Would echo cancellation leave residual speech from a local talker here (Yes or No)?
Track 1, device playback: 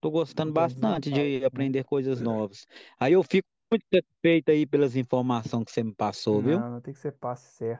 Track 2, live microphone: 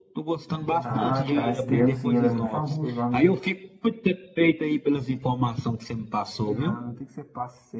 Yes